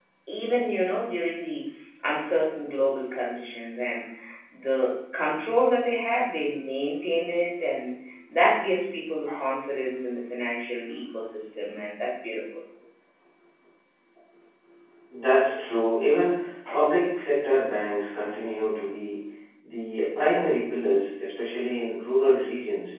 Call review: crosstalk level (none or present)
none